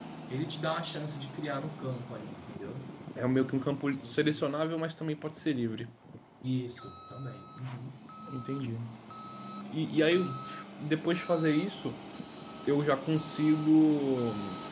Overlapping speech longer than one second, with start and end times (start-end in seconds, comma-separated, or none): 3.3-4.6